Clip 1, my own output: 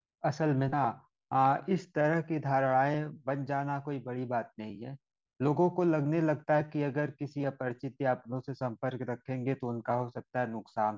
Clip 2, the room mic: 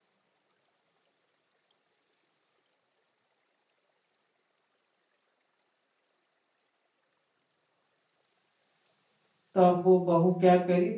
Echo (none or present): none